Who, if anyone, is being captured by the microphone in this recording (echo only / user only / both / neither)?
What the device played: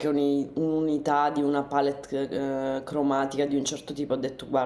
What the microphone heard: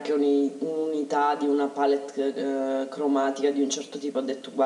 echo only